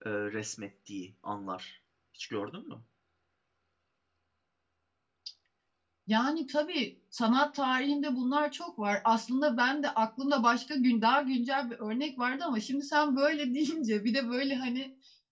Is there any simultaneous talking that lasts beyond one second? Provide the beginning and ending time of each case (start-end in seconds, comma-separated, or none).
none